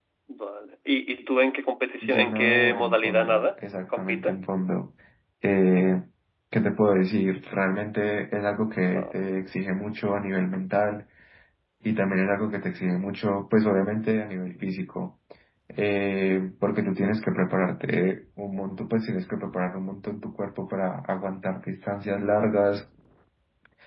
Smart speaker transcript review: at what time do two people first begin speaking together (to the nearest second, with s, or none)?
2 s